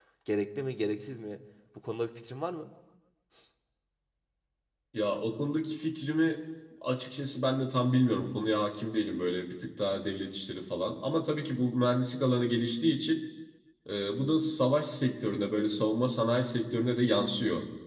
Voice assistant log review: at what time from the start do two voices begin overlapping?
none

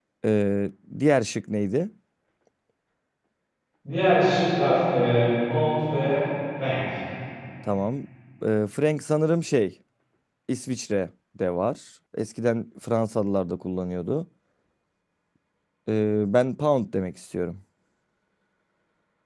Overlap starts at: none

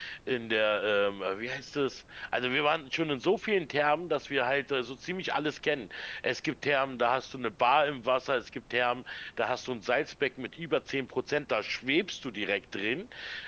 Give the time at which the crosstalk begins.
none

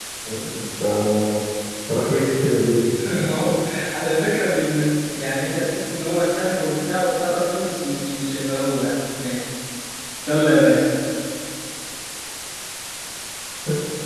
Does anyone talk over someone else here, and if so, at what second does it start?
none

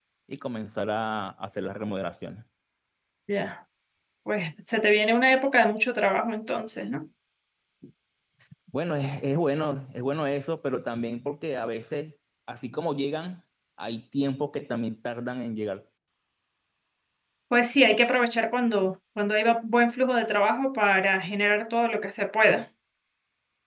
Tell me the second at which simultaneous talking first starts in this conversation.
none

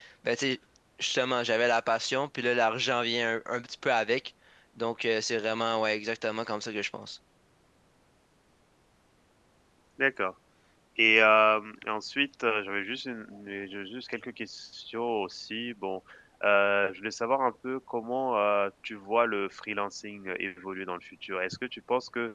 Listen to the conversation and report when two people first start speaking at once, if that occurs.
none

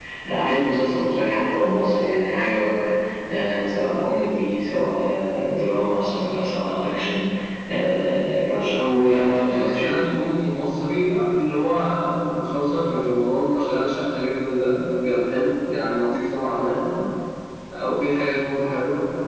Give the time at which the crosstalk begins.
8.8 s

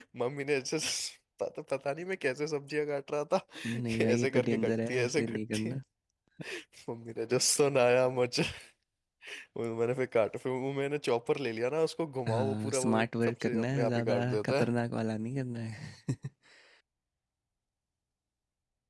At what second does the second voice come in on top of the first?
3.8 s

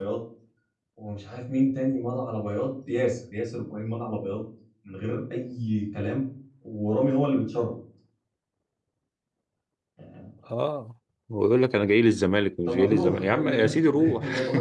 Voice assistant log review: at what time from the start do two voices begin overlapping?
12.7 s

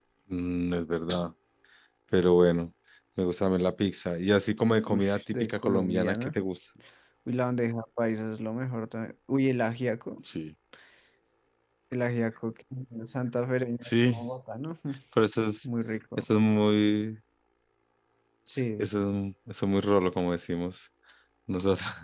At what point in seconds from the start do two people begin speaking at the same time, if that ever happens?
4.9 s

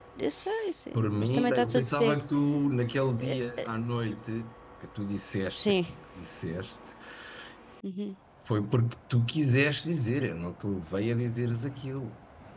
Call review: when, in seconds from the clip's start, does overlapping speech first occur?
0.9 s

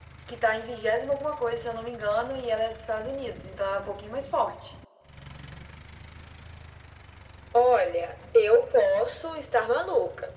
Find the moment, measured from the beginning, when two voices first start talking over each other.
none

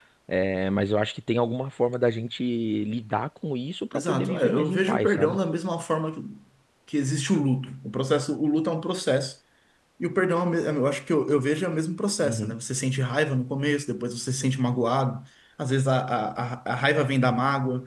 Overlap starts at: 3.9 s

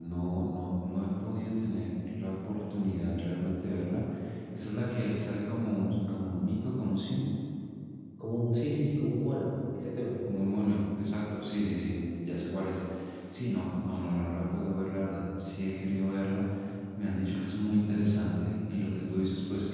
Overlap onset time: none

